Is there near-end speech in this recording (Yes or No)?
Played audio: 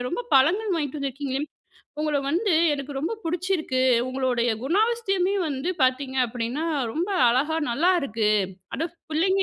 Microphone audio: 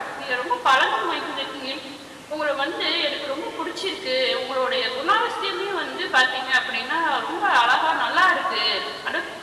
No